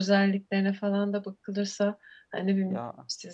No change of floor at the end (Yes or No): Yes